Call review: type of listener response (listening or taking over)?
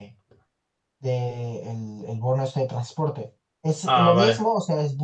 listening